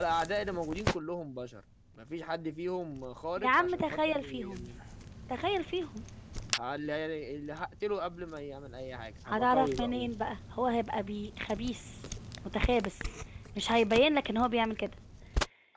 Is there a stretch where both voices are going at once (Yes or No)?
Yes